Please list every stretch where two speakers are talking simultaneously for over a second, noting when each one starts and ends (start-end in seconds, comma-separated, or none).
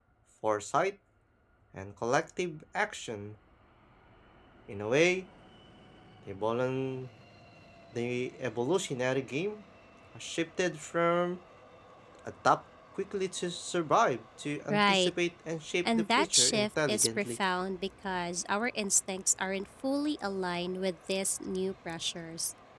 15.8-17.4